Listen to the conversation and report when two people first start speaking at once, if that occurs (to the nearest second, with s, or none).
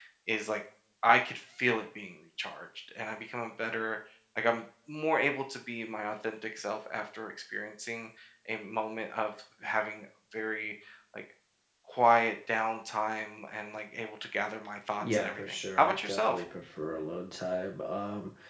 15 s